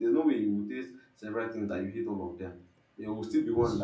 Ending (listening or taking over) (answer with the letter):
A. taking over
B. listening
B